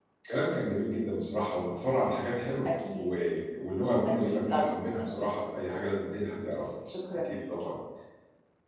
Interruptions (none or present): present